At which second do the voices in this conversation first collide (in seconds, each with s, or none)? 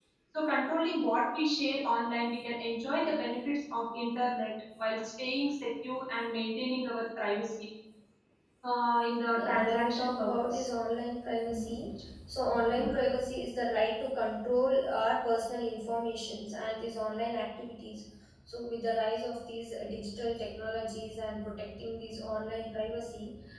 9.3 s